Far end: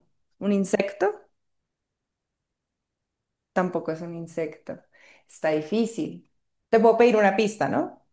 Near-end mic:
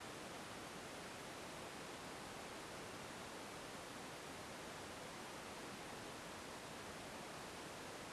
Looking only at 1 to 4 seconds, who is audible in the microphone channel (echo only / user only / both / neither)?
neither